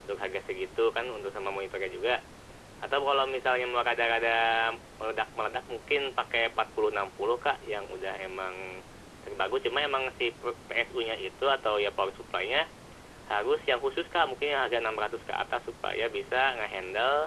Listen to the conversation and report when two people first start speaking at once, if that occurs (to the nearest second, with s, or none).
none